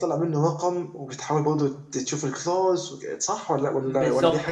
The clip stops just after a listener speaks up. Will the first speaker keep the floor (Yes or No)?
No